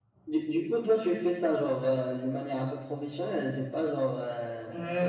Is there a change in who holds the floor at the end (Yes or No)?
Yes